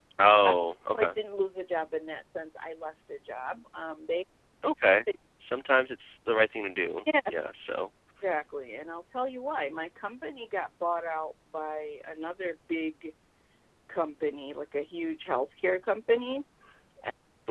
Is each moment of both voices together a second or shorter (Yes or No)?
Yes